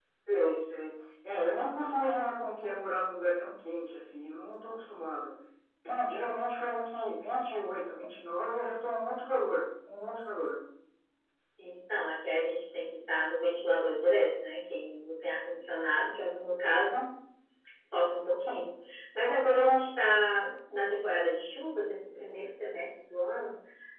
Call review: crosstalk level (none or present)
none